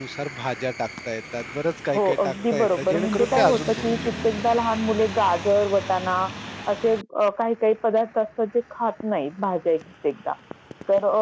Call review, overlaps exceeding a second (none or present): present